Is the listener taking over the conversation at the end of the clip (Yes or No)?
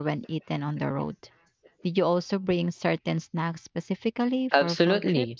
Yes